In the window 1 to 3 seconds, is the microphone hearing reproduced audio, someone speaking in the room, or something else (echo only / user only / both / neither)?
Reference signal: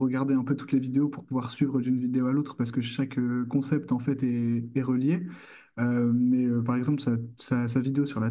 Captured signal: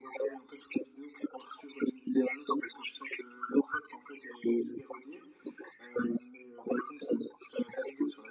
echo only